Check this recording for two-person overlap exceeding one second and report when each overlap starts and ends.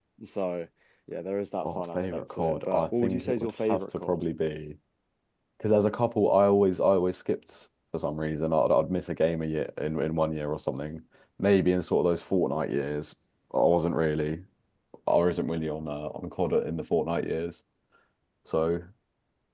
1.6-4.2

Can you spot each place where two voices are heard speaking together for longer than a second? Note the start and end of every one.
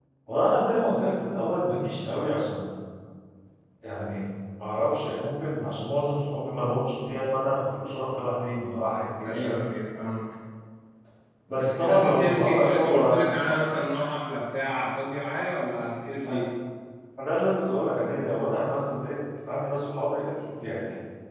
11.6-13.4

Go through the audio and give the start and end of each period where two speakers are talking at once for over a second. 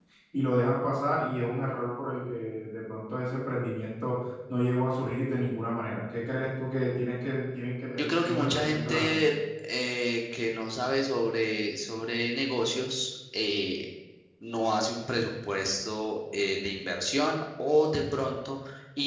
8.0-9.2

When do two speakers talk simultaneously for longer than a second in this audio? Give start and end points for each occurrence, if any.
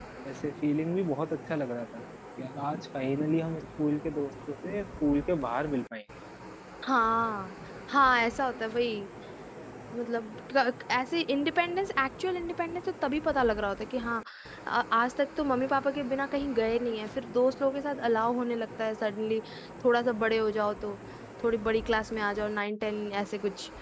none

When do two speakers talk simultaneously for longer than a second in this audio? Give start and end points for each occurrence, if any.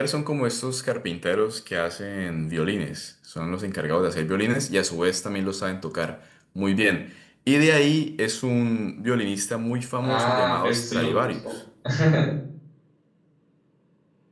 10.0-11.4

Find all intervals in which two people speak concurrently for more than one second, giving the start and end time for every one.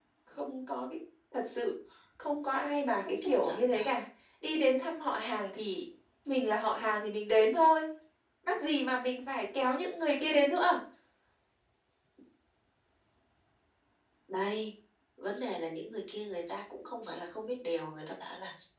2.6-3.9

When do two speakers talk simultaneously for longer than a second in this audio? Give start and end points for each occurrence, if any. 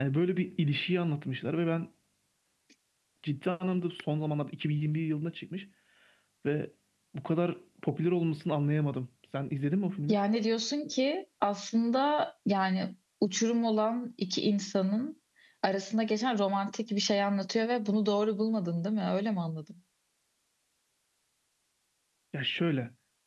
none

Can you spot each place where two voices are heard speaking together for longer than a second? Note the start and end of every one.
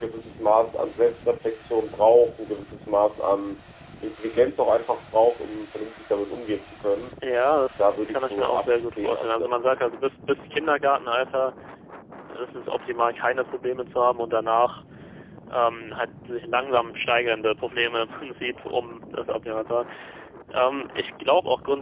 7.8-9.8

